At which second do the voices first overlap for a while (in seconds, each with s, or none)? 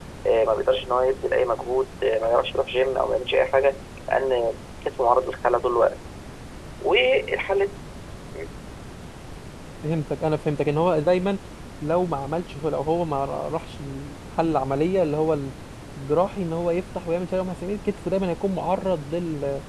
none